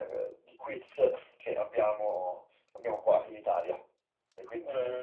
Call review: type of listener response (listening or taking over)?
taking over